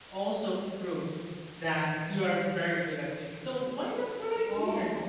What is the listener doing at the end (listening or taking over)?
listening